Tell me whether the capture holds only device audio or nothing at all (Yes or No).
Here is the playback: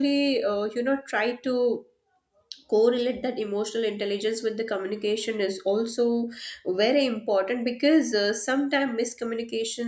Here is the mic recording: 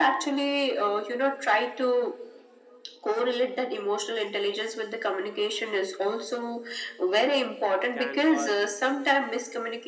No